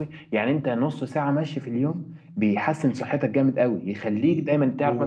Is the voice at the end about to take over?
No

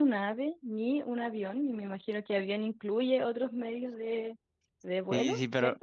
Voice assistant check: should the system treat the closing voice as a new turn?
Yes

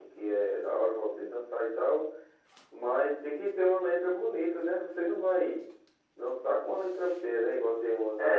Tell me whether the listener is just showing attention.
No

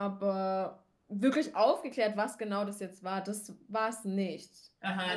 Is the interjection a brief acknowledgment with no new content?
No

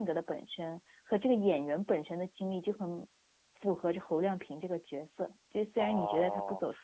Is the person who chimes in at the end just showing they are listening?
No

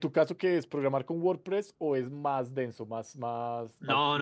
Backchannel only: No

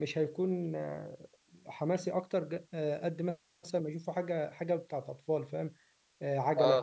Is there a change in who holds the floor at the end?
No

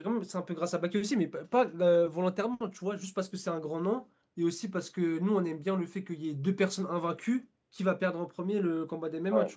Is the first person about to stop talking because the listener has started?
No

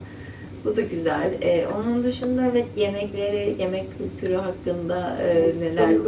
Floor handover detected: Yes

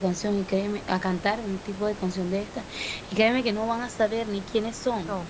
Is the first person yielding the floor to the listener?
No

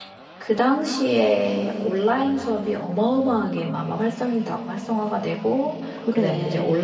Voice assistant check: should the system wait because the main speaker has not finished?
Yes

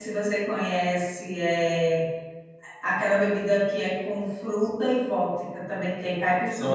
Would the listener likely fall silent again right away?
No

